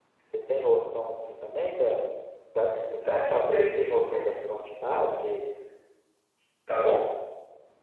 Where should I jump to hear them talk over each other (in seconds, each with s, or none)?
3.1 s